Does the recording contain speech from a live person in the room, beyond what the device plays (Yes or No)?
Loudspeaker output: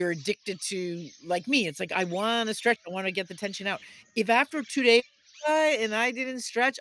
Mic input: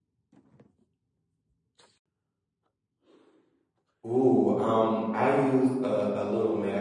Yes